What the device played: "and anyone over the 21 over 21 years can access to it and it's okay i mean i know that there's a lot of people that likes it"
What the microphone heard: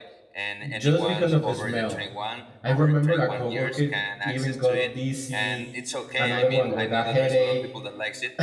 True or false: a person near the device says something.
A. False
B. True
B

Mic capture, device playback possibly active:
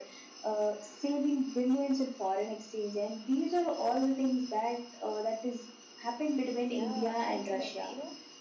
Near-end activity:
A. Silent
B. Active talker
B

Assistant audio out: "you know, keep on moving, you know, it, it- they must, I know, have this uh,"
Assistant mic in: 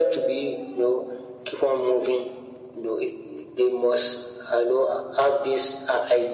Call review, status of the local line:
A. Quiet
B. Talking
A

